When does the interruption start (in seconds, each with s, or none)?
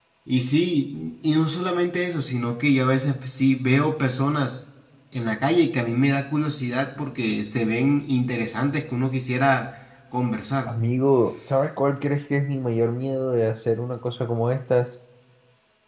none